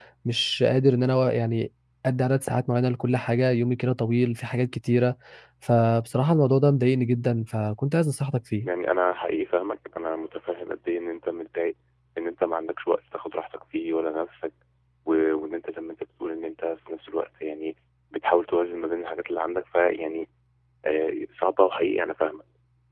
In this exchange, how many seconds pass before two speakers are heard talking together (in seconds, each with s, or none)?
none